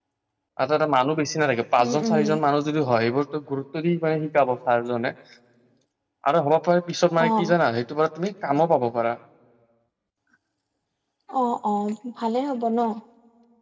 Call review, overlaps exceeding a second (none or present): none